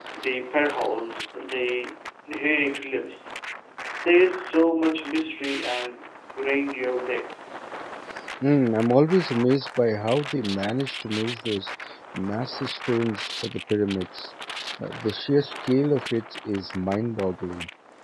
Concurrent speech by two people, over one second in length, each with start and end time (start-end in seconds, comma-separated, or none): none